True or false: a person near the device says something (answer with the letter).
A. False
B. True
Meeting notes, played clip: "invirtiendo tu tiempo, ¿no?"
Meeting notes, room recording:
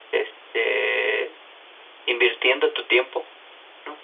A